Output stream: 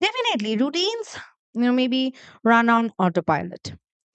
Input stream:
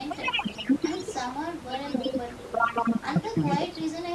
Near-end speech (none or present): present